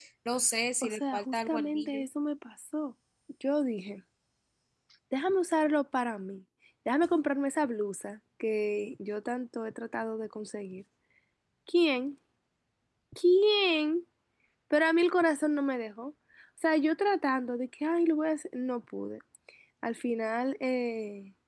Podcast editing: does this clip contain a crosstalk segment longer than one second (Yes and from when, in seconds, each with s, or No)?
Yes, from 0.8 s